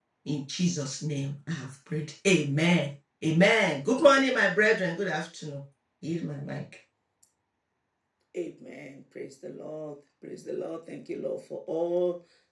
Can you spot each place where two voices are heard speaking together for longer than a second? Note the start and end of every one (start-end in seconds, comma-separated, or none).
none